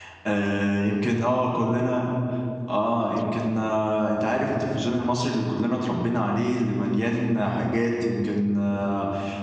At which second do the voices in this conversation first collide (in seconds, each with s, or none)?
none